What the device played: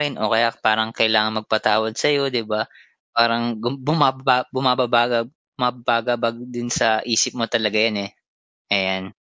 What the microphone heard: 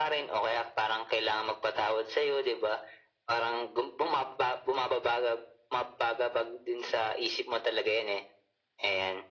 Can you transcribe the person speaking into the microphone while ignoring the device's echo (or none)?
none